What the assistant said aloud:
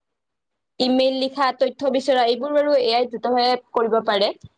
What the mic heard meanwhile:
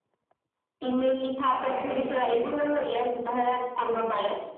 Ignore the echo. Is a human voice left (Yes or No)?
Yes